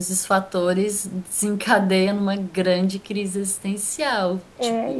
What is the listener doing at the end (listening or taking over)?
taking over